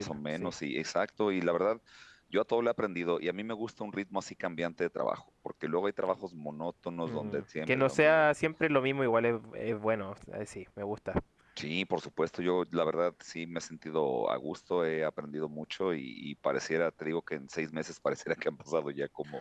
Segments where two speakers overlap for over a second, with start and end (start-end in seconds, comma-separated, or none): 7.1-8.3